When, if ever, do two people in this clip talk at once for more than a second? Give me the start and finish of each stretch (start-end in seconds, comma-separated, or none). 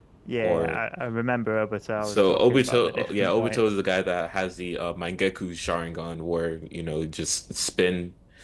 2.0-3.6